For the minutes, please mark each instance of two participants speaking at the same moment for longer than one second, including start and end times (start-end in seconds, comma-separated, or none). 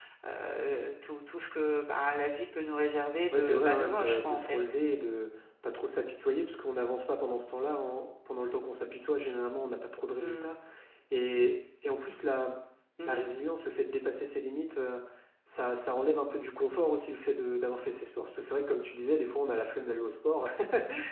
3.3-4.6